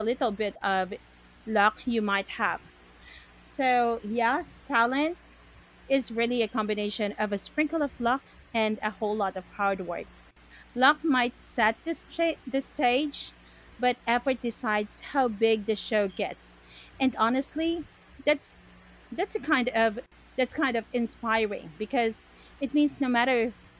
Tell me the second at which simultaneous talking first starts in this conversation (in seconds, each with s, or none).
none